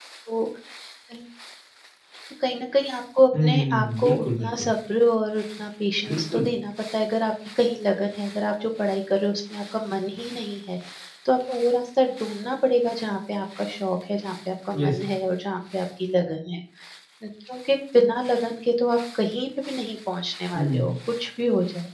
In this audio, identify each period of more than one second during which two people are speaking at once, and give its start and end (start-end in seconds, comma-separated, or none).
3.4-4.7